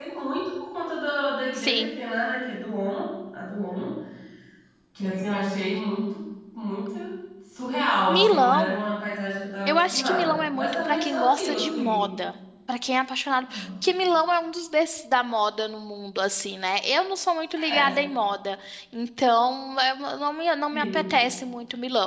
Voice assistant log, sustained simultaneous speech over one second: present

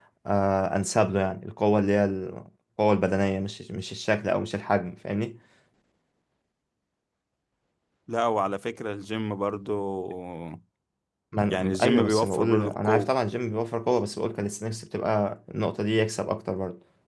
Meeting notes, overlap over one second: present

